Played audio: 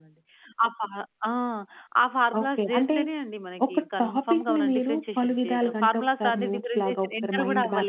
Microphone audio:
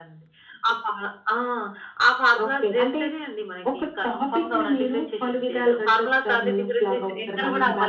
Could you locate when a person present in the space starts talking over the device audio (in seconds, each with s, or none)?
none